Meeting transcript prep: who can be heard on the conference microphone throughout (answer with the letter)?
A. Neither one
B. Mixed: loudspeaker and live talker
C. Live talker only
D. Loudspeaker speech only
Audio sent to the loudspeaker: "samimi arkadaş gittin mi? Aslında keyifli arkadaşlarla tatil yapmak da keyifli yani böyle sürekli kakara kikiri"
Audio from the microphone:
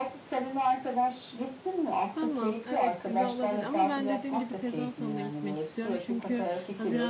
B